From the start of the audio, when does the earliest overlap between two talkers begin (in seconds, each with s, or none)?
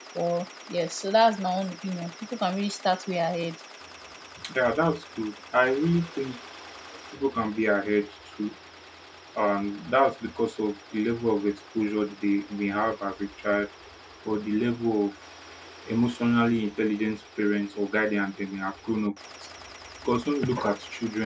none